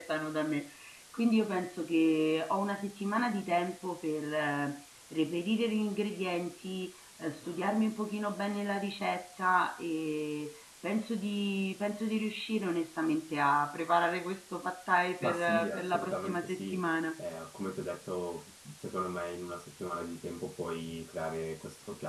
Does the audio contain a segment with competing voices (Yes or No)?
Yes